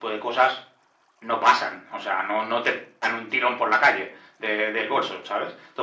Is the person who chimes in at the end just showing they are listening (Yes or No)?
Yes